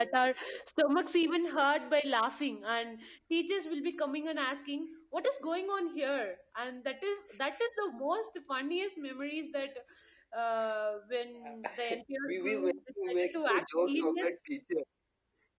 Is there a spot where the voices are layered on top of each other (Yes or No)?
Yes